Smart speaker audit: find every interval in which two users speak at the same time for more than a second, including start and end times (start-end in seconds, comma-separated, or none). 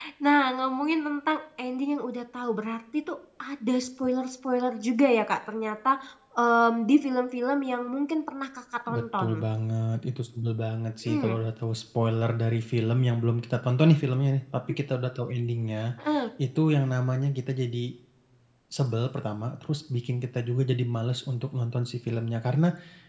none